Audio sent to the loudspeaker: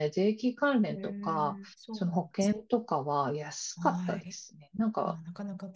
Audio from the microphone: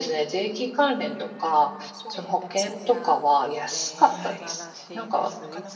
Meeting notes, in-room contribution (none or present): present